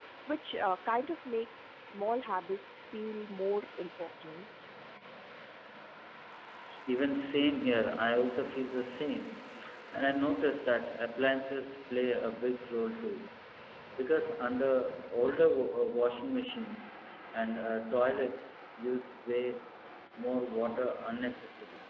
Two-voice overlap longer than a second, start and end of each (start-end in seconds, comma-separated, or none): none